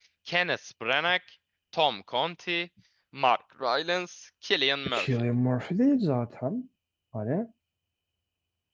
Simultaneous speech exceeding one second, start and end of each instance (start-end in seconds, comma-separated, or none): none